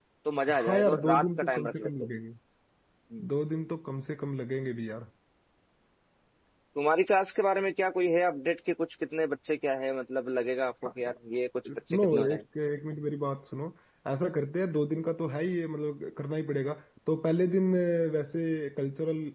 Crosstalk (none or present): present